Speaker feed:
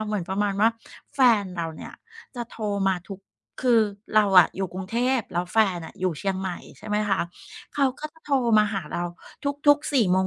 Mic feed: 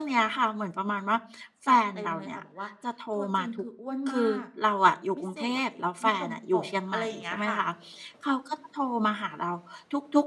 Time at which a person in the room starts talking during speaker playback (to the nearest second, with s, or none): 2 s